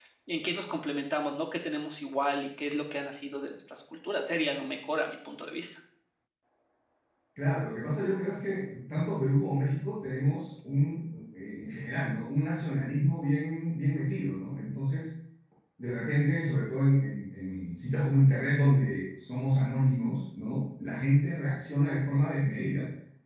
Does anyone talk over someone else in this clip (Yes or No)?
No